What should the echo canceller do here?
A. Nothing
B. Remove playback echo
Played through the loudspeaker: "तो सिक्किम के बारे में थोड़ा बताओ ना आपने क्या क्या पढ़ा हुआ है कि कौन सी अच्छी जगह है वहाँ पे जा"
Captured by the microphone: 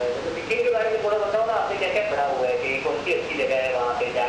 B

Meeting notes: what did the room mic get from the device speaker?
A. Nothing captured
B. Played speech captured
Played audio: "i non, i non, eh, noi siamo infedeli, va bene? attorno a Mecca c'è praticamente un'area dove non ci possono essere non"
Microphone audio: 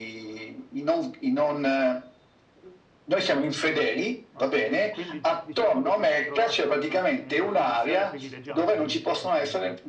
B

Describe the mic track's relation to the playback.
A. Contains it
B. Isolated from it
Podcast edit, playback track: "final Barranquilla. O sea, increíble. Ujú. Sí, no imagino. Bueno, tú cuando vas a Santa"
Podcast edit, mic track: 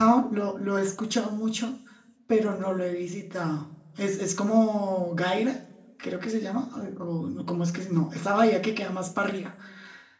B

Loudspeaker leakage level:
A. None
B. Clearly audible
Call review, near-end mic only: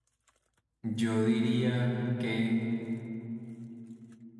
A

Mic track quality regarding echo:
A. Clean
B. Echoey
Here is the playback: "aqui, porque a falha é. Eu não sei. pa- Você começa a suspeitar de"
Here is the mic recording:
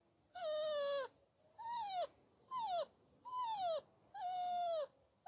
A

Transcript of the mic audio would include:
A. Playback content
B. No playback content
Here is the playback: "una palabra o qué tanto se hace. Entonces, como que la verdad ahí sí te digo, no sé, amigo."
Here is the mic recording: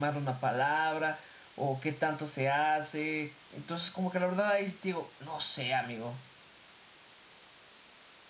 A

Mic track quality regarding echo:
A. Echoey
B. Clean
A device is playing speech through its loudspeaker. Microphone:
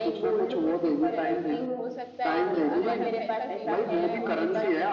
A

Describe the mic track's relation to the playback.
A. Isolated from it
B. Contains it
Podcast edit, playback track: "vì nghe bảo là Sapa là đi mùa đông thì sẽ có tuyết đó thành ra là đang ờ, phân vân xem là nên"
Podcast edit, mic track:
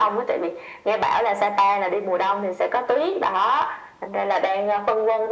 B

